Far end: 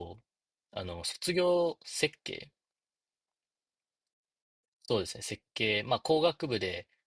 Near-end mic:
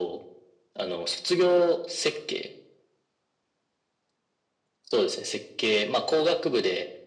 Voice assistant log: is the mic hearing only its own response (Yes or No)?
Yes